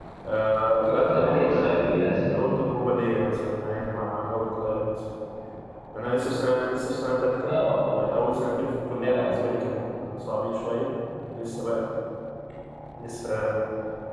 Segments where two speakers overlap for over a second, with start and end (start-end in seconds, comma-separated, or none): 0.9-2.3